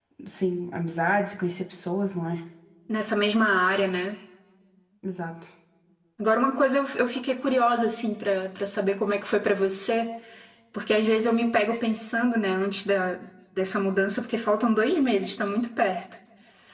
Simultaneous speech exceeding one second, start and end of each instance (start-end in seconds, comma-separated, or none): none